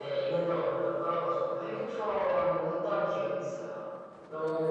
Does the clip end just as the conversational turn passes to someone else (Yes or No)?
Yes